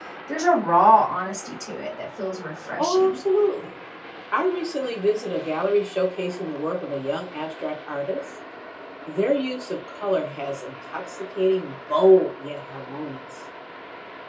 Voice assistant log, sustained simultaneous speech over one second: none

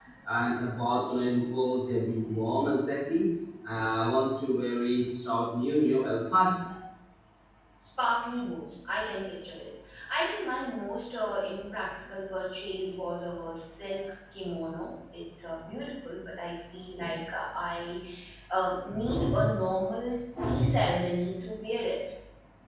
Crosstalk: none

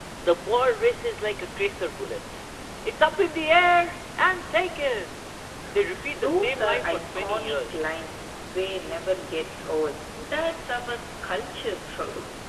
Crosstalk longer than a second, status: present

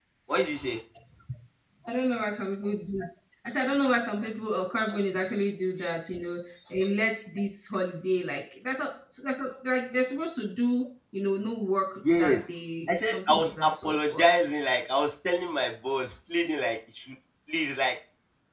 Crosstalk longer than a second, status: present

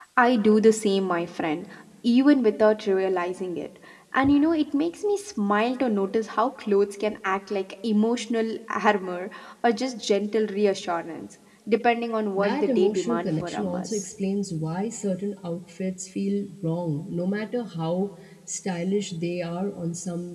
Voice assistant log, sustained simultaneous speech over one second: present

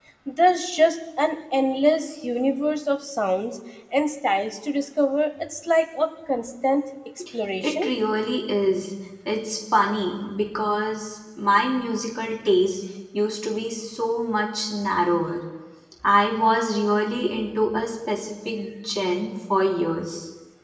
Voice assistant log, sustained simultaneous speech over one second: none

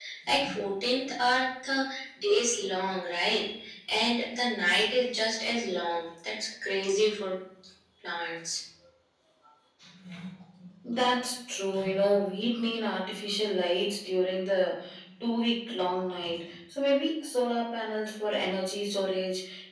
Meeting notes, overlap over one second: none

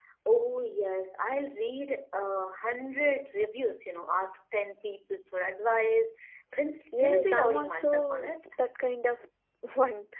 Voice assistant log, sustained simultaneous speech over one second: present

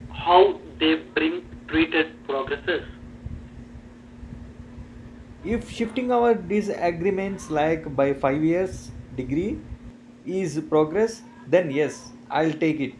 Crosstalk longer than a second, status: none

